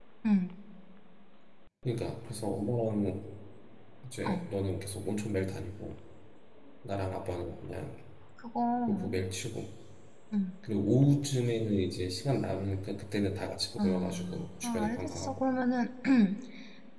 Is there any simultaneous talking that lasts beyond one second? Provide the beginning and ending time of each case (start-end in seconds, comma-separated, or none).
13.8-15.4